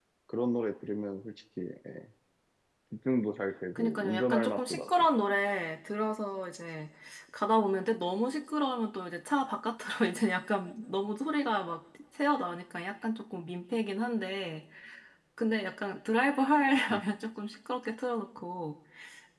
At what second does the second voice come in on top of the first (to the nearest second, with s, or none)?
4 s